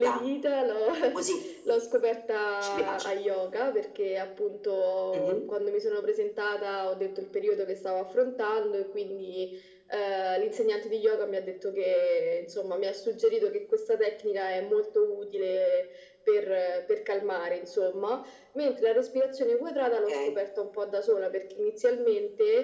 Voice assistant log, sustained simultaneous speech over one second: none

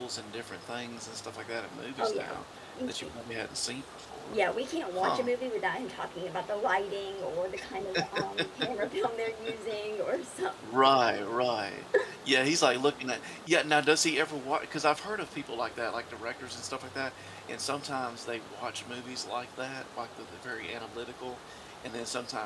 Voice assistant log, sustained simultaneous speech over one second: none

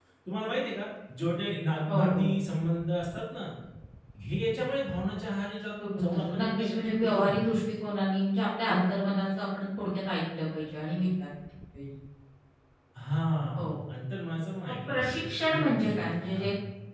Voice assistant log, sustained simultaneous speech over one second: present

